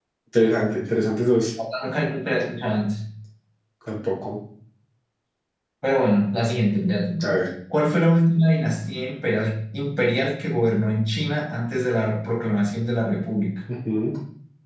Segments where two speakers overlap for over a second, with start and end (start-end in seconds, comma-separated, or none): none